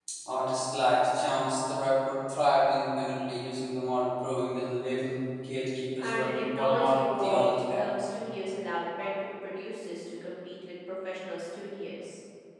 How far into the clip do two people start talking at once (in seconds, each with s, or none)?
6.0 s